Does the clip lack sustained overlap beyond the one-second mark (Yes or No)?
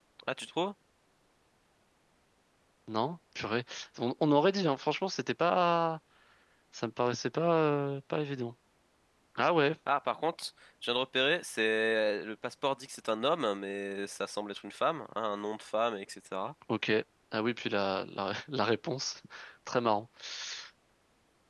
Yes